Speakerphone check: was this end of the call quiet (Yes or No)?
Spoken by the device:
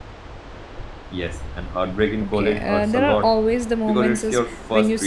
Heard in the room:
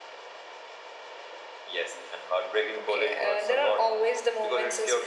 Yes